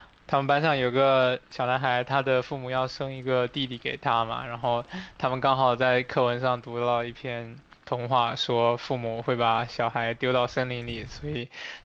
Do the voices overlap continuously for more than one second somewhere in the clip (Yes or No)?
No